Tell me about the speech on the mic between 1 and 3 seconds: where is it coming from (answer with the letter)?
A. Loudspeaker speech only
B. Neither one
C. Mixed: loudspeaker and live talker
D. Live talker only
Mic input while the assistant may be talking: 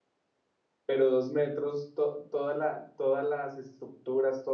D